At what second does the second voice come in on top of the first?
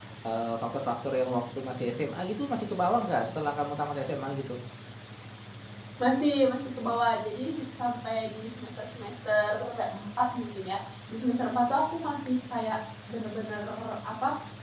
none

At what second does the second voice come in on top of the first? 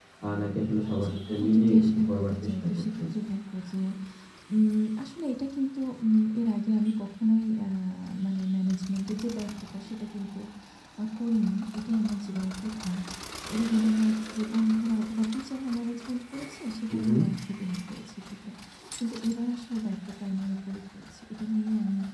0.9 s

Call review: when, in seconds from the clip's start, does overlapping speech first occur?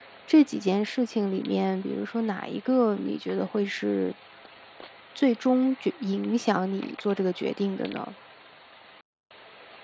none

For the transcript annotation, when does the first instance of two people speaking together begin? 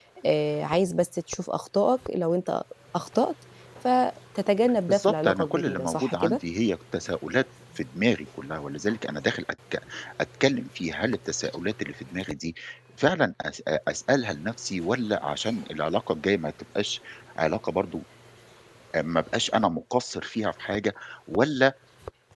4.9 s

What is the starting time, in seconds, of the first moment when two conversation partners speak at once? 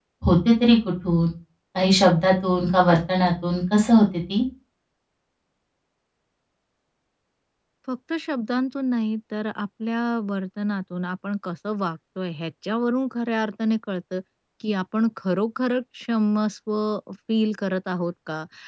none

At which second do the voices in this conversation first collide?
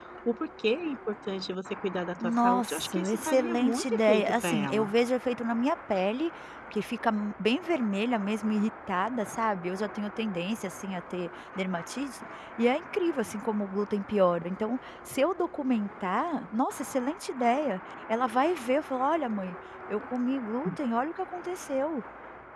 2.2 s

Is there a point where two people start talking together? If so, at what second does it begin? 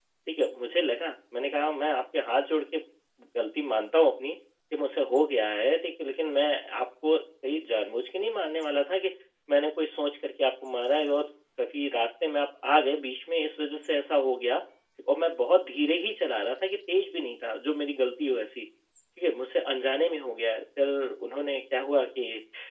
none

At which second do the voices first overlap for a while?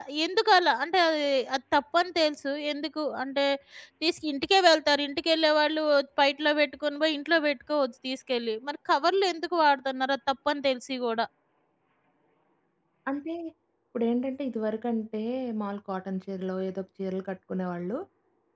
none

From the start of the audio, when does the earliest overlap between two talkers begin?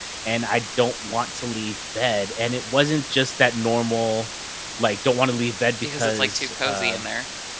5.8 s

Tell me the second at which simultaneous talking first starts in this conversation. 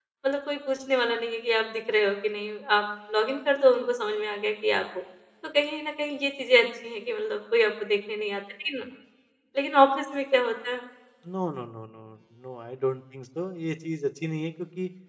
none

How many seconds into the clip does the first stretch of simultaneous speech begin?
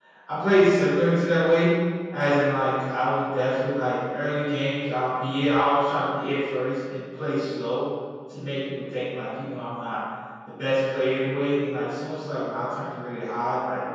none

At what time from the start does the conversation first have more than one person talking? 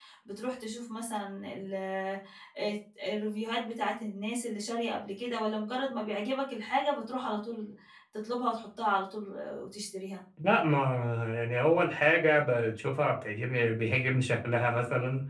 none

